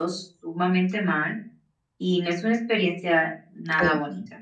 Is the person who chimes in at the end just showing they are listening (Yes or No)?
No